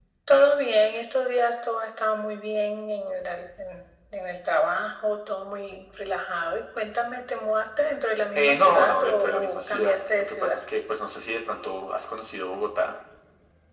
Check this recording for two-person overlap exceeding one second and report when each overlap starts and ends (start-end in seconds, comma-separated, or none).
8.3-10.6